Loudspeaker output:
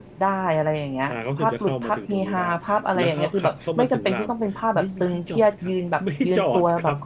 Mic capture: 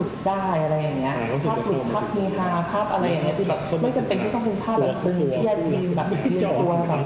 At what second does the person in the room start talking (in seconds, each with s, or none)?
4.7 s